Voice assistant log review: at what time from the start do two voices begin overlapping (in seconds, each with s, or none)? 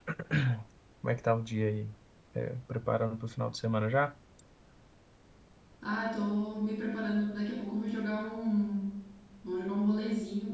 none